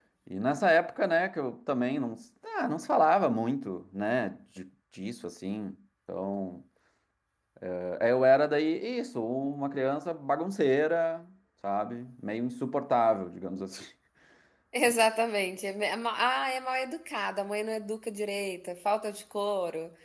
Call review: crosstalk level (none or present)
none